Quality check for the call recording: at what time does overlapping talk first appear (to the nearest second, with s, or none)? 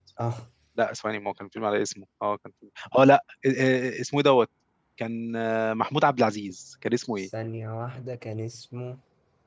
none